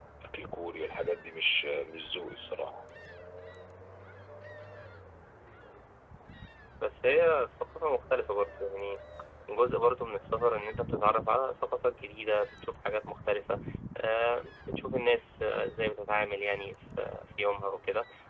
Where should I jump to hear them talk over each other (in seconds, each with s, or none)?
none